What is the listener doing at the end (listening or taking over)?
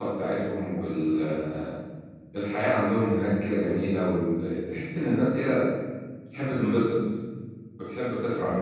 taking over